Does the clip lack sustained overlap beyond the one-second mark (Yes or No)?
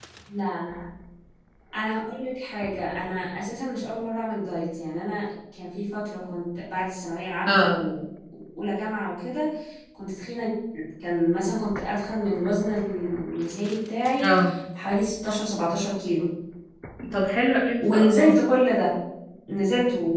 Yes